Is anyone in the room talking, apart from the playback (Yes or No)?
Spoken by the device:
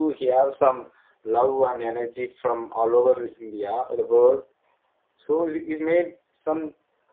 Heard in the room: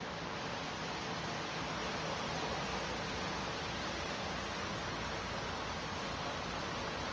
No